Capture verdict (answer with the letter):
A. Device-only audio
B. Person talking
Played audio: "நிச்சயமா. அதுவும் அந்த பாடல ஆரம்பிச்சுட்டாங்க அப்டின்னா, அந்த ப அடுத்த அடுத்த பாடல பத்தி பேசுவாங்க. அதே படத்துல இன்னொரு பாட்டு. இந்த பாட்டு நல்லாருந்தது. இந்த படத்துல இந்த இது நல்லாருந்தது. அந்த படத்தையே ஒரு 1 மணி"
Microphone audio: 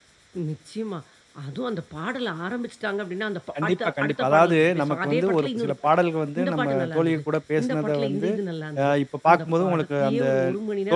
B